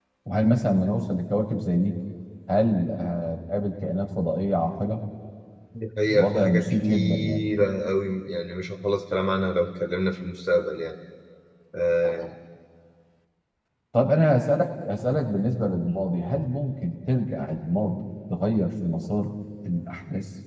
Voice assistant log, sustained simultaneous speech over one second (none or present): present